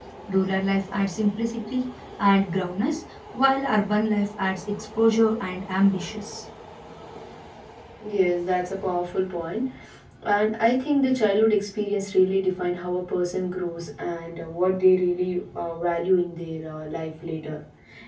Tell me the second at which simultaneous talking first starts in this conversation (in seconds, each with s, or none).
none